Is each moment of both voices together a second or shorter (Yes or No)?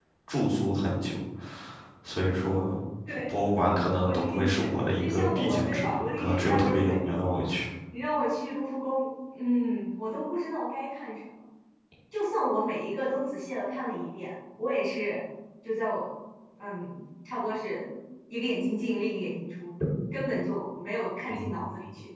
No